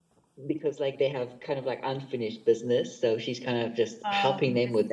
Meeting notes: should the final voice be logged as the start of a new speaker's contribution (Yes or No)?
Yes